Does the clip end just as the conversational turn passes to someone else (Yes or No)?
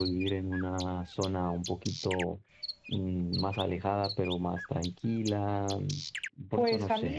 Yes